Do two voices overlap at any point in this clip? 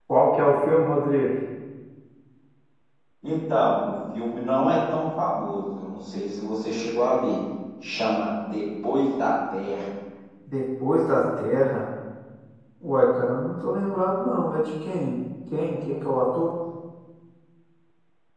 No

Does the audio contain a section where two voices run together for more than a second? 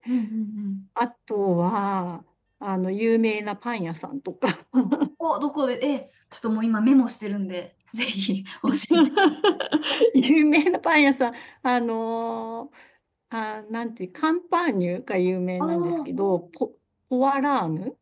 No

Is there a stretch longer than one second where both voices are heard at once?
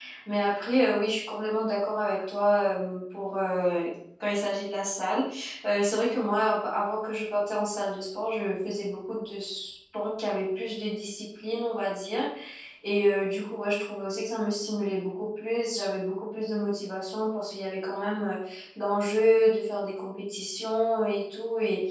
No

